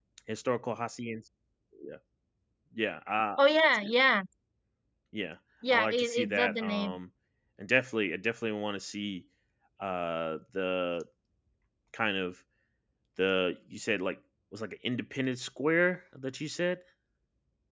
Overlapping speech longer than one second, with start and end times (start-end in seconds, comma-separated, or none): 5.7-6.9